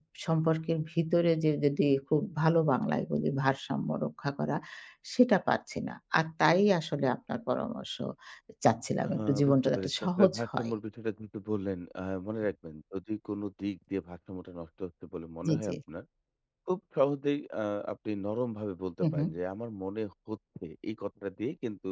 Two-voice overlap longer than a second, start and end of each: 9.1-10.7

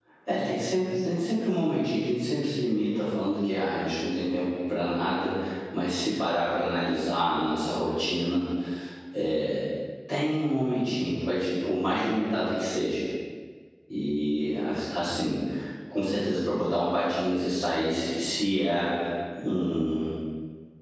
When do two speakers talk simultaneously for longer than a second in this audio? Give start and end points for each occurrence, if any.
none

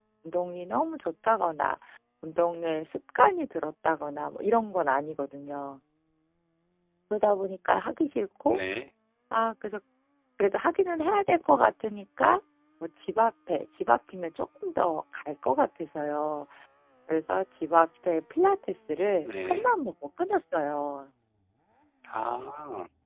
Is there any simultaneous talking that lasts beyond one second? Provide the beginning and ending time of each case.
none

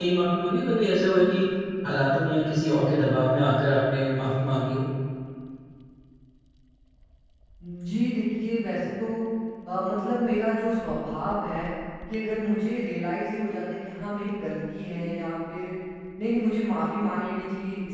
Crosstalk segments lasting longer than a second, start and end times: none

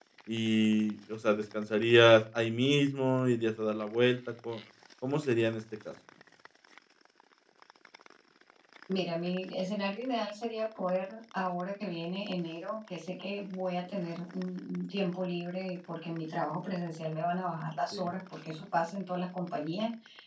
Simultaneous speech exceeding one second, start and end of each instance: none

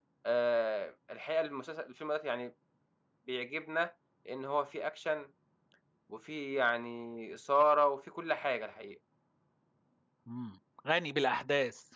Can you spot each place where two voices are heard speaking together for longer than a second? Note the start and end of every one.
none

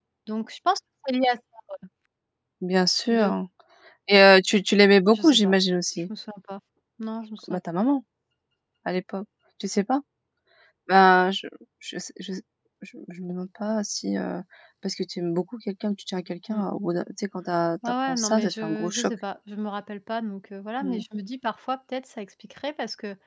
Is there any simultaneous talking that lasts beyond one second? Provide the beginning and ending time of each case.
17.9-19.1

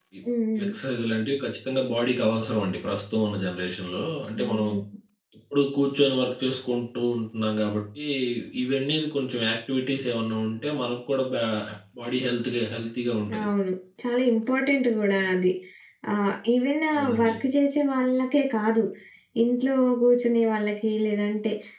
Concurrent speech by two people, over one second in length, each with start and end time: none

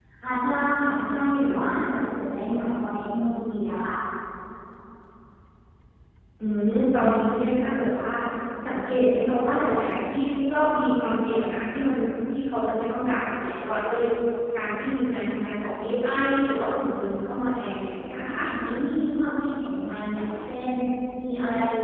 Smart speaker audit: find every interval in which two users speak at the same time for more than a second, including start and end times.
none

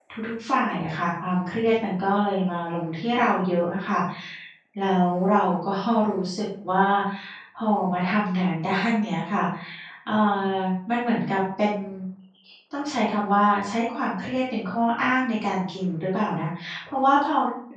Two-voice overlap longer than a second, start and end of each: none

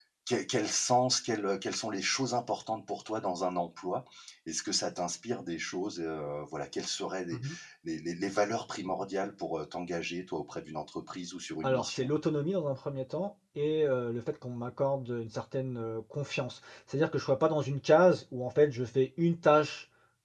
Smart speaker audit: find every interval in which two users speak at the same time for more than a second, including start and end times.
none

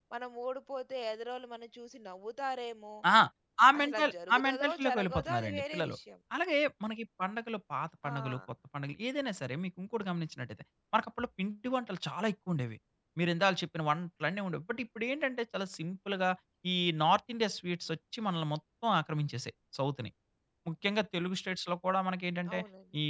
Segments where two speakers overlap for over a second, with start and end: 3.8-5.9

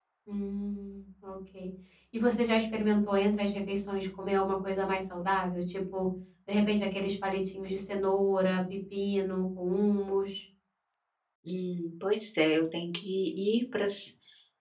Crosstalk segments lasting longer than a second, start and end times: none

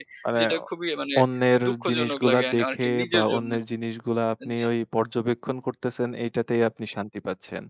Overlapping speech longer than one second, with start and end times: 1.7-3.5

